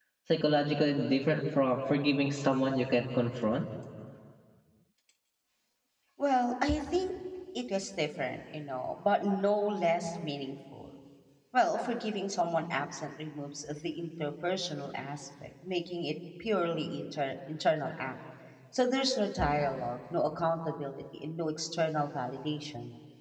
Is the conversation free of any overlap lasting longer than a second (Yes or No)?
Yes